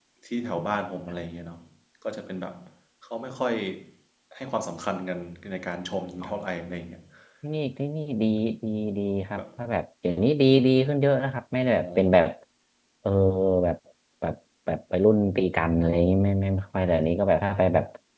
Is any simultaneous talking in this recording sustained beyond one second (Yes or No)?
No